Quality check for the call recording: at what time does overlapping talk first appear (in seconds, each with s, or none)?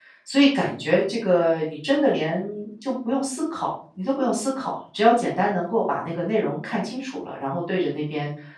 none